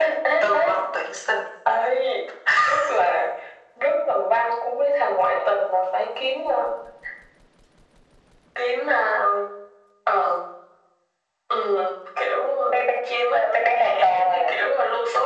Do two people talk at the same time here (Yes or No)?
Yes